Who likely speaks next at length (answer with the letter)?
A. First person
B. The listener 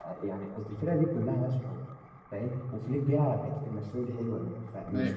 A